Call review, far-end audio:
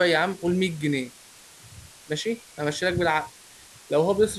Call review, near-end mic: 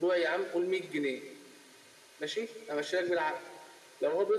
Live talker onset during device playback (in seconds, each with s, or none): none